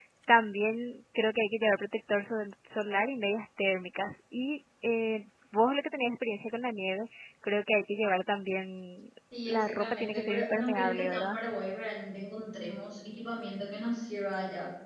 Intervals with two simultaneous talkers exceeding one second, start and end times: 9.5-11.4

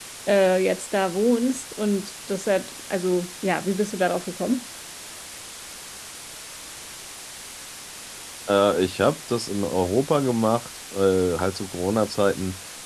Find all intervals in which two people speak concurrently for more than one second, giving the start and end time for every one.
none

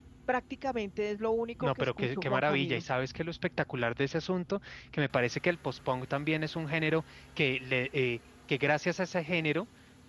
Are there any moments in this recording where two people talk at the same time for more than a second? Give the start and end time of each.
1.6-2.8

